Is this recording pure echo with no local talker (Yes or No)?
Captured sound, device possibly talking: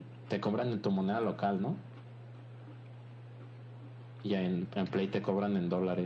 Yes